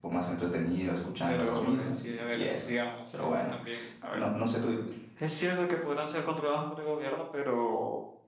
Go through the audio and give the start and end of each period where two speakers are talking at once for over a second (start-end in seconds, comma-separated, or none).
1.3-2.7